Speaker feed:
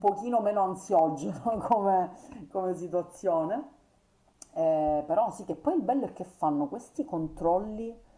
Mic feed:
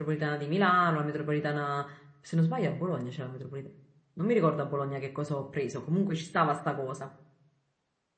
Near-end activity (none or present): present